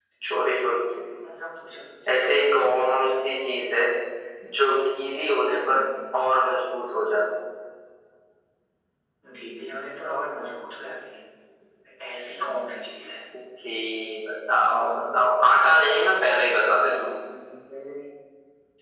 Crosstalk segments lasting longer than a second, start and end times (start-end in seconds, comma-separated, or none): 2.1-3.3